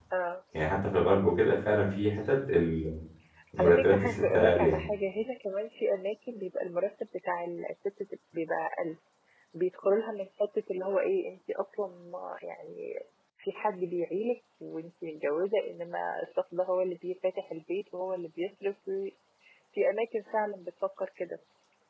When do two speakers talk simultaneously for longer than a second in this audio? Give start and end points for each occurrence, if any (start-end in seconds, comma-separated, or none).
3.6-4.8